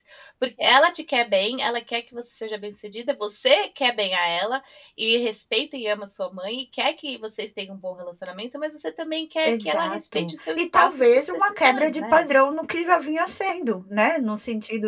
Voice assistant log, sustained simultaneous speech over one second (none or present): present